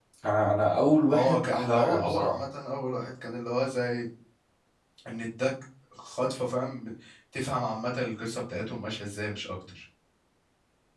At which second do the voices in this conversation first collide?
1.1 s

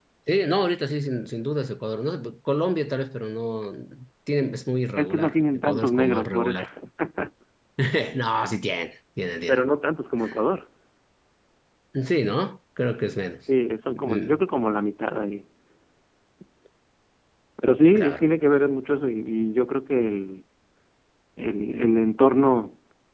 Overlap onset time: 5.0 s

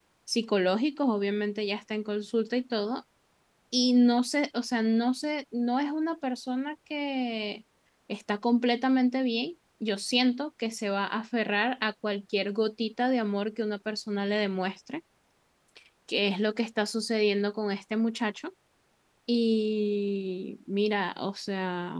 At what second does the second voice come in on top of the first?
none

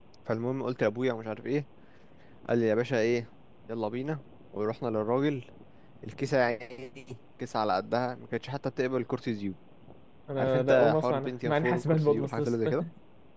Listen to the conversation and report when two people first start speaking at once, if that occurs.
10.4 s

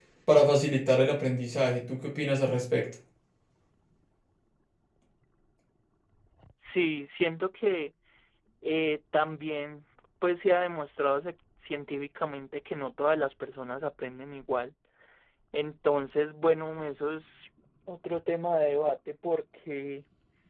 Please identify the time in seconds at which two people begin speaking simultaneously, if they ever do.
none

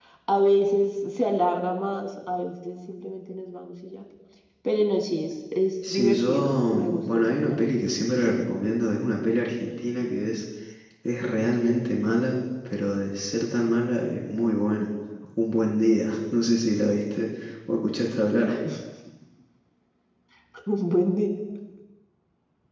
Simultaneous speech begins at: 5.8 s

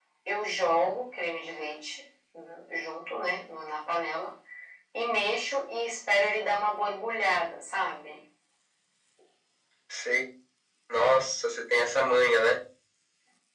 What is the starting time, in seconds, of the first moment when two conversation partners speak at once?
none

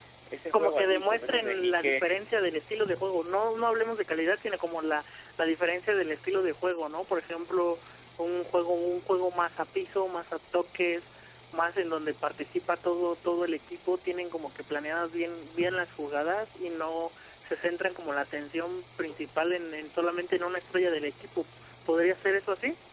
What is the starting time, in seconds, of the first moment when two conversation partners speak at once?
0.5 s

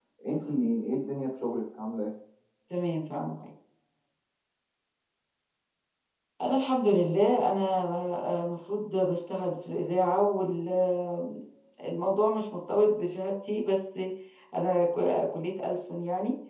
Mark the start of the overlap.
none

